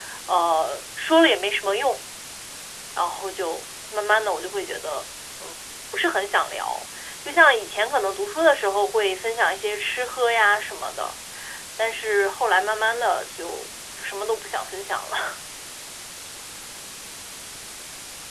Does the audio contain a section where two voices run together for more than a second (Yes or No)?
No